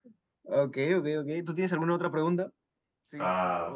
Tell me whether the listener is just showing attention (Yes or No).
No